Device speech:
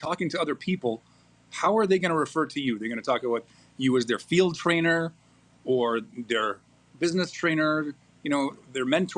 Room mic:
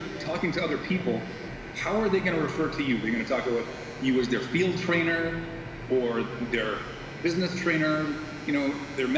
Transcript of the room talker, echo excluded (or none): none